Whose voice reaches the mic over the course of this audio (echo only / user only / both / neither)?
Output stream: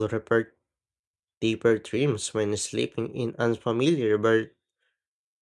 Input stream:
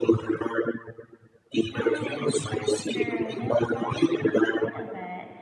both